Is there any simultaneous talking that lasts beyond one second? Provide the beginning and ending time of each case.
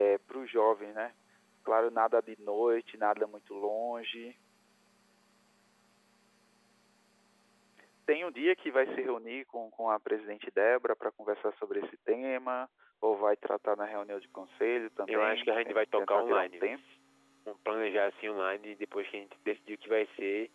15.1-16.7

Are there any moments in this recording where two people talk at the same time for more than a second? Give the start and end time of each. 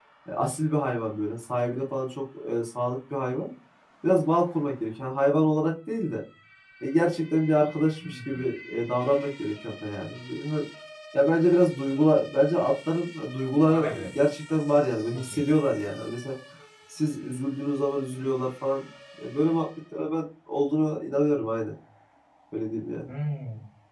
none

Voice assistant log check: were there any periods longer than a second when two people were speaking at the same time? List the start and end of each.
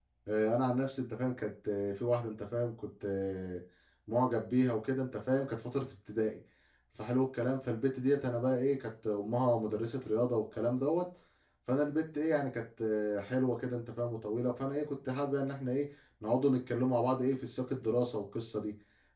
none

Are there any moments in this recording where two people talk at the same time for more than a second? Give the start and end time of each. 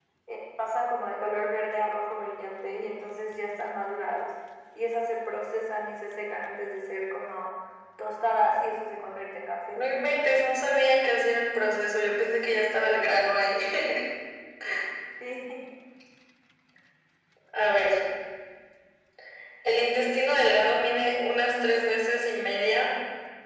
none

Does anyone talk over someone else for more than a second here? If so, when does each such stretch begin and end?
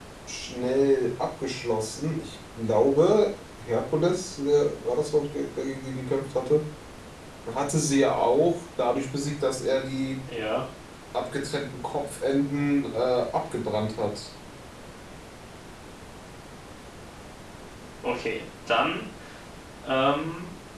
none

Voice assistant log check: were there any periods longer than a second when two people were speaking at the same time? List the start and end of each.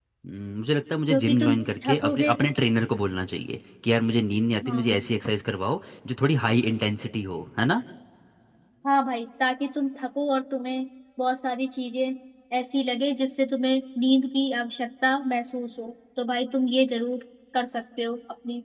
1.1-2.3

